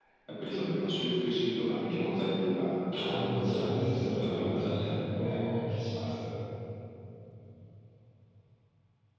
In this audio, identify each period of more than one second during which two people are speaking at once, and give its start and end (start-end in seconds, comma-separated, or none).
2.9-4.8